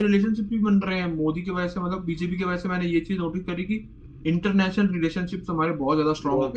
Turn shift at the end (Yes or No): Yes